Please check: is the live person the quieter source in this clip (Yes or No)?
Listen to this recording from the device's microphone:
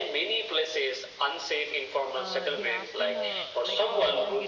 Yes